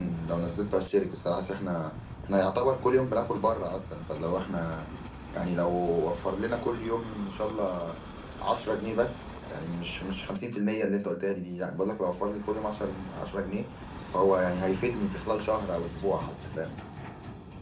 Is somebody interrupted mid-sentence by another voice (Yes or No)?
No